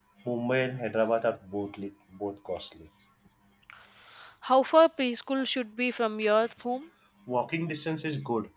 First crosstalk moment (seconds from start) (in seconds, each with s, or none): none